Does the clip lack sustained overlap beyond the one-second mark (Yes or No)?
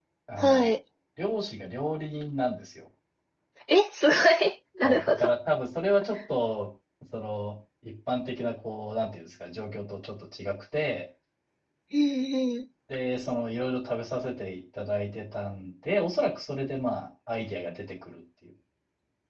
Yes